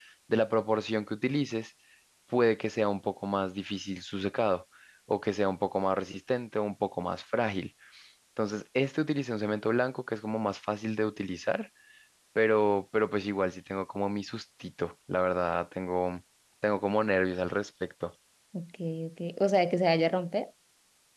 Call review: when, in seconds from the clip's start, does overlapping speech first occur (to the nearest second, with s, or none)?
none